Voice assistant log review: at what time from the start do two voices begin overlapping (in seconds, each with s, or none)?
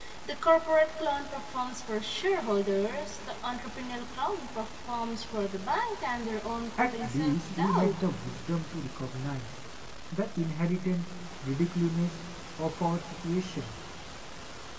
6.8 s